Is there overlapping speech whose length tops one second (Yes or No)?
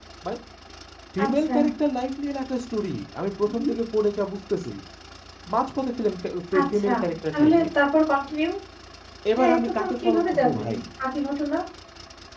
Yes